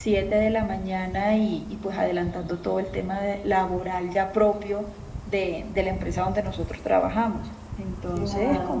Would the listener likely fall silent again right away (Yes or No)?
No